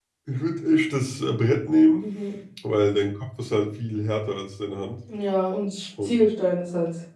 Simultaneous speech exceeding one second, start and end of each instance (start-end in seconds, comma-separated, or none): none